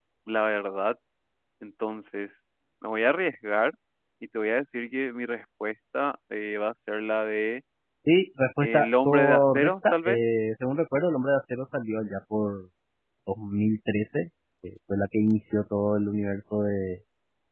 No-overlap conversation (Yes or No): No